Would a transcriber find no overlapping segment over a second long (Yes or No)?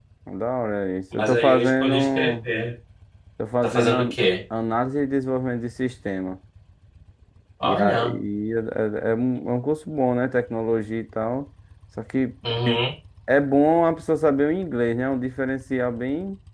No